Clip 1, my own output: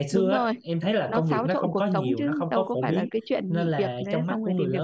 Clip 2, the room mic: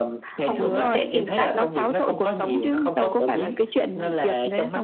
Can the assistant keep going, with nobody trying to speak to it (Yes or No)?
No